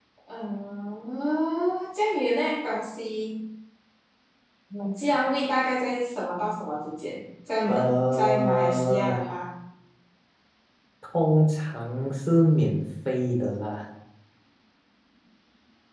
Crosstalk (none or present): present